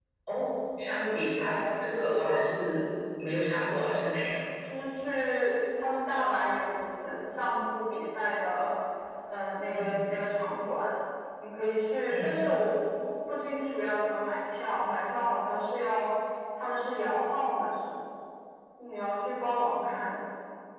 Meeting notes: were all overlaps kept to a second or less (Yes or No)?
Yes